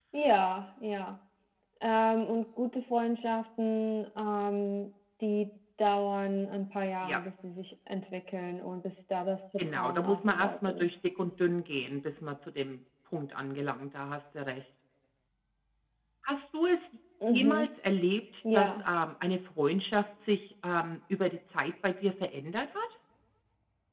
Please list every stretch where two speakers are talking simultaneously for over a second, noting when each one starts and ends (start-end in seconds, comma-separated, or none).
9.6-10.9